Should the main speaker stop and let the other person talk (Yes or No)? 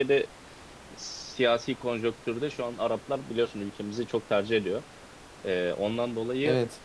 No